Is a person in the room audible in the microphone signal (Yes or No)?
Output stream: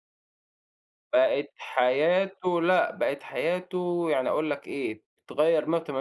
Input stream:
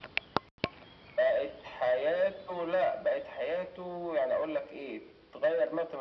No